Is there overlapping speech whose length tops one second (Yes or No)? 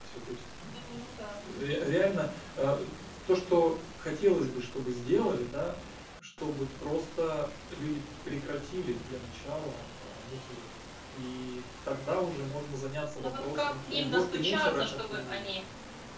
Yes